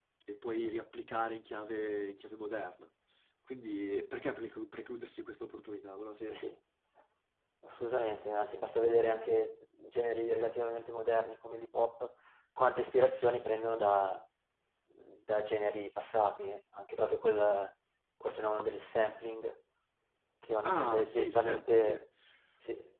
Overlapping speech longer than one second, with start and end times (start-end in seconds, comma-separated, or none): 20.6-22.0